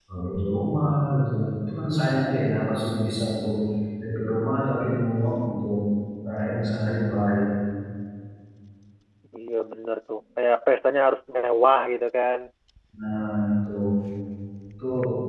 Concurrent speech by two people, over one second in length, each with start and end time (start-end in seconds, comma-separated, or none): none